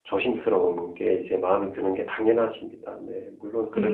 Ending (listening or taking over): taking over